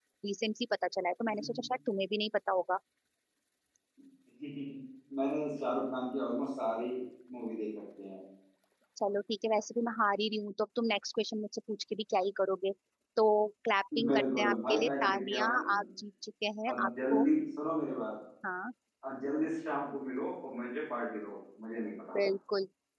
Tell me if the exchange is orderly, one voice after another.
No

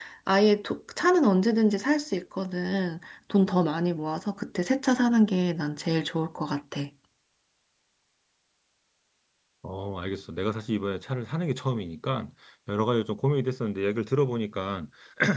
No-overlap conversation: Yes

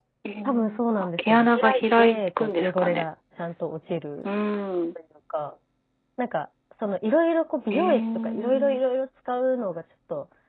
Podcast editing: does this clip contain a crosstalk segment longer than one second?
Yes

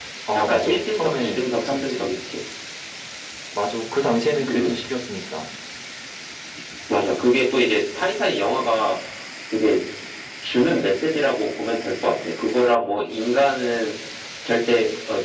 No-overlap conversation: No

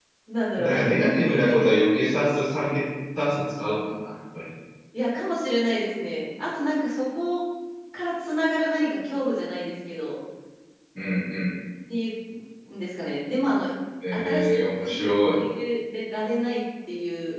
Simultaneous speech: Yes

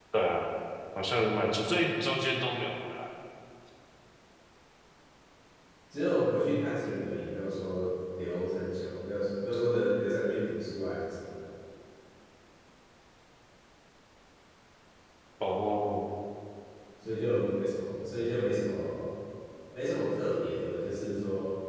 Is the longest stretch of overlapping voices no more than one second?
Yes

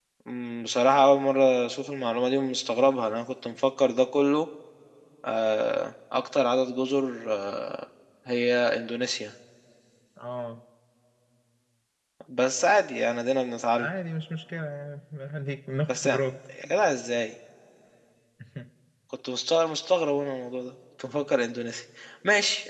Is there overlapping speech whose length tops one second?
No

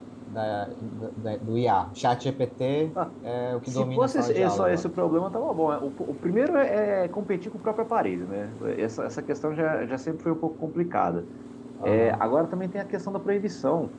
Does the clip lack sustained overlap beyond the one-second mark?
No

